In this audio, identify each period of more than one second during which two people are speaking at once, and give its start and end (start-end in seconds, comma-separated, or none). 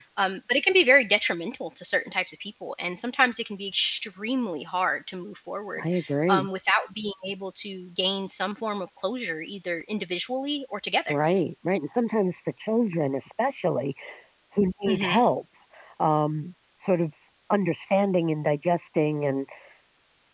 none